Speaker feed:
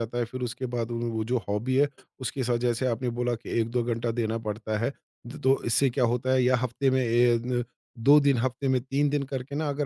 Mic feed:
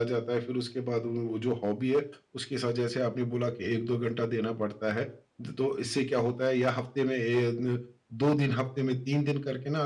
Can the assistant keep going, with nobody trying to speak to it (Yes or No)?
Yes